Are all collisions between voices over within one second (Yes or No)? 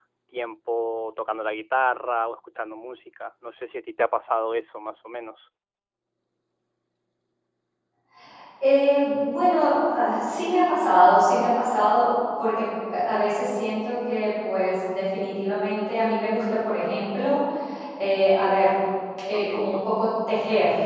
Yes